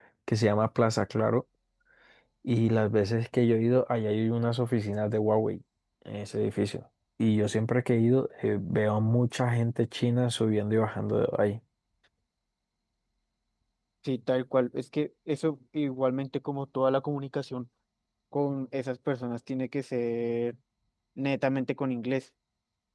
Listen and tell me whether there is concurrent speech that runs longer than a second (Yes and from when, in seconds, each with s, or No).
No